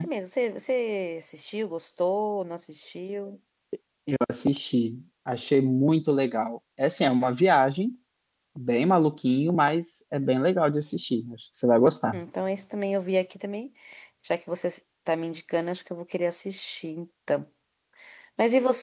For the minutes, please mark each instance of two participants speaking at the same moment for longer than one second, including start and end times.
none

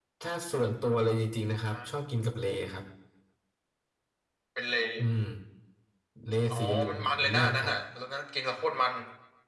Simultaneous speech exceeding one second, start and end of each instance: 6.5-7.7

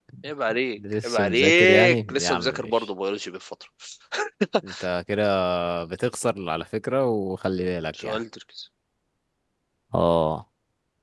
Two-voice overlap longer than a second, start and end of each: 1.0-2.9

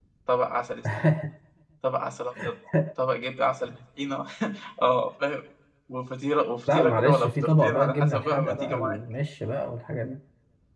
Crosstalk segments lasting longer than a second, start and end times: 6.7-9.0

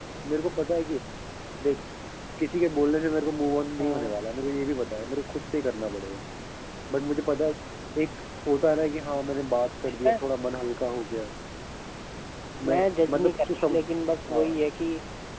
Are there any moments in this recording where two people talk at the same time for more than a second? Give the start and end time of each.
12.6-13.8

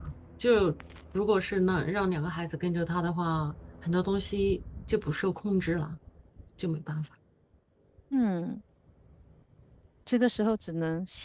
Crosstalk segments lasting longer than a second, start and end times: none

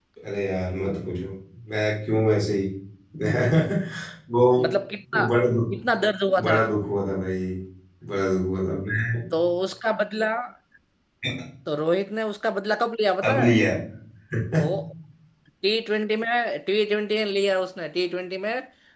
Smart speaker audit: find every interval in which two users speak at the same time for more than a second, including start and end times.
none

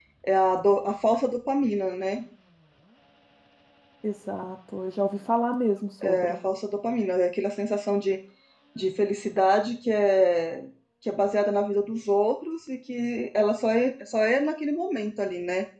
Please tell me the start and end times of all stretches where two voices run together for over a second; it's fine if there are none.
none

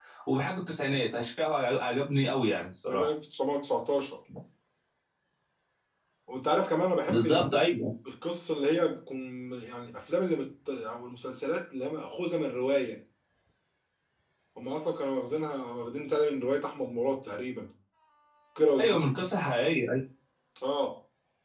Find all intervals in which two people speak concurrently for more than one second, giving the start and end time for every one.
none

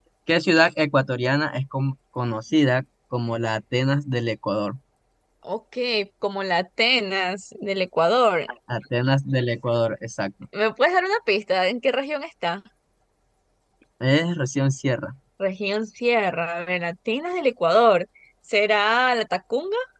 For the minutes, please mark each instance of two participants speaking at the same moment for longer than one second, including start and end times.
none

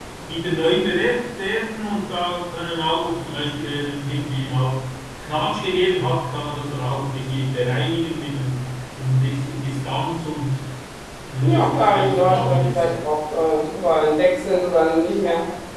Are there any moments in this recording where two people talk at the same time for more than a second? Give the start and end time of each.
11.4-12.8

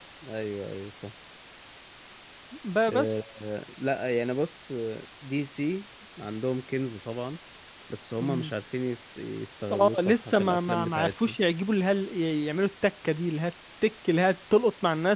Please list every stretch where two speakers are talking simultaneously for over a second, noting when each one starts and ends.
9.7-11.4

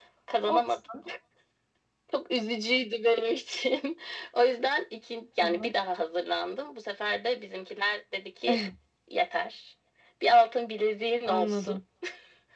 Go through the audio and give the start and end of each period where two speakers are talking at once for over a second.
none

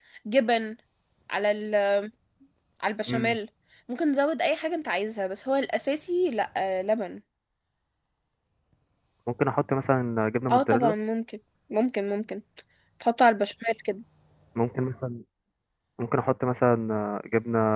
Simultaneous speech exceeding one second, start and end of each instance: none

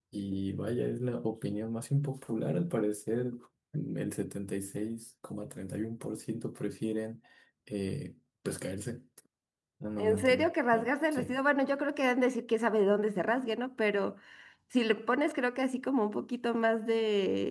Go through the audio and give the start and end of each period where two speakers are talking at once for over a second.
10.0-11.4

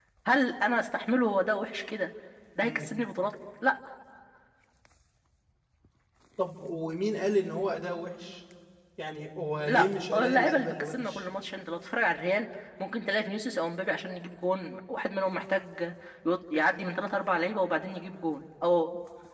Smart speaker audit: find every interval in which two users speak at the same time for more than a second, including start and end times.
9.7-11.2

